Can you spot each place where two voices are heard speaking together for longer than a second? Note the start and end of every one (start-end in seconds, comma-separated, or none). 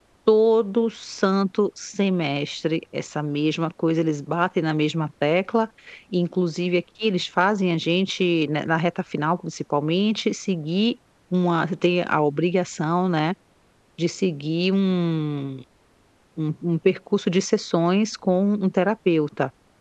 none